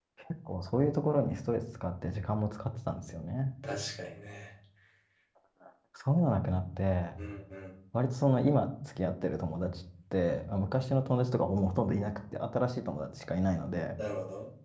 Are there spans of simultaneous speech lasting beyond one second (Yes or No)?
No